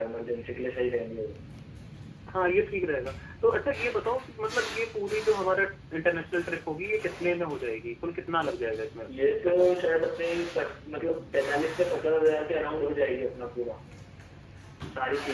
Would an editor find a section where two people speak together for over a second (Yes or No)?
No